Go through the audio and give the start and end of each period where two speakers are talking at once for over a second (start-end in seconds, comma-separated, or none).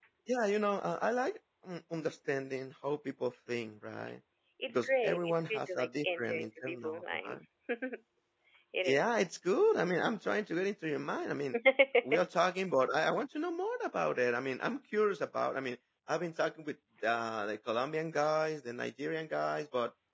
4.7-7.4